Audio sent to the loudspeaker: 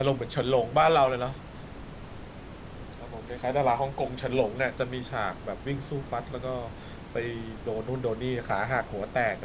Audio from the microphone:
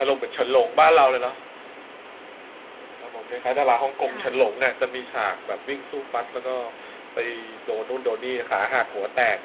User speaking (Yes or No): Yes